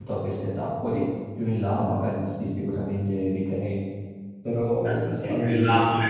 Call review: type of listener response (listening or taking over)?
taking over